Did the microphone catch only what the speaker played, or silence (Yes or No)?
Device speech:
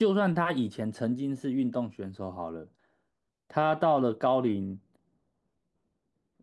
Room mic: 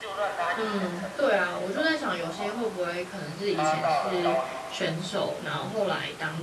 No